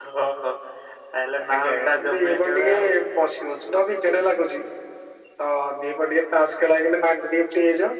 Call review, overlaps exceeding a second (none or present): present